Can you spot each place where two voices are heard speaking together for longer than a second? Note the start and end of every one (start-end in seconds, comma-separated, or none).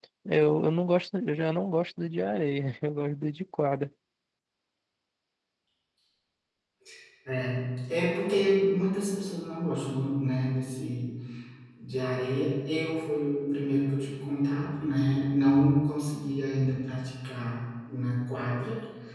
none